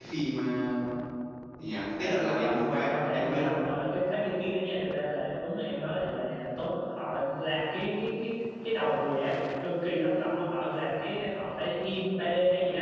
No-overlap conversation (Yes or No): No